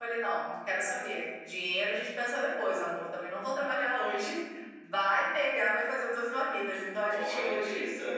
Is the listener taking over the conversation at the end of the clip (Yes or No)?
Yes